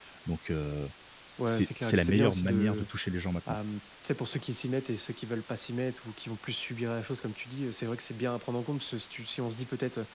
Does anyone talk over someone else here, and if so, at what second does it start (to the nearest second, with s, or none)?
1 s